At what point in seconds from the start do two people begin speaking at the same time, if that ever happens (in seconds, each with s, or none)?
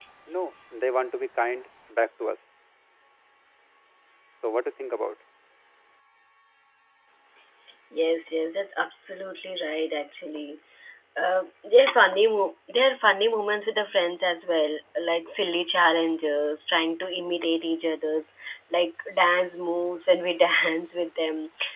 none